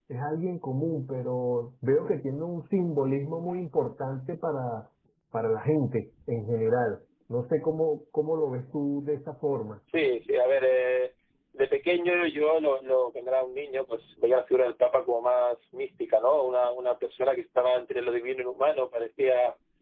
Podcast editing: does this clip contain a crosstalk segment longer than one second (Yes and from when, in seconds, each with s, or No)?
No